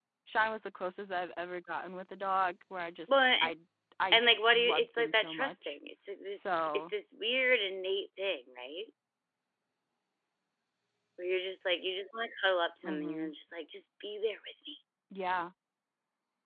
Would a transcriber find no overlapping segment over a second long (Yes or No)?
No